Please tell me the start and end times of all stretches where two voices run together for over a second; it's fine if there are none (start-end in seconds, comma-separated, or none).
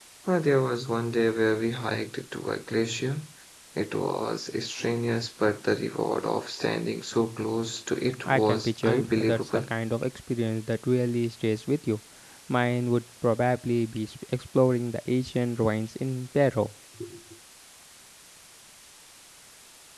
8.2-9.6